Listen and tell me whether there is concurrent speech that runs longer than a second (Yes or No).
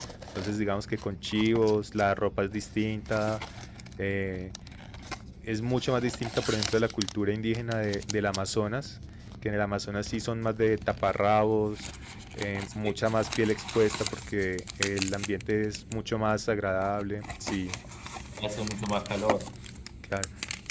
No